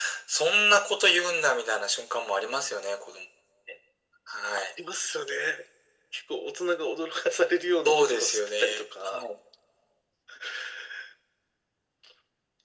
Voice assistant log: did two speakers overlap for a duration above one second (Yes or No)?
Yes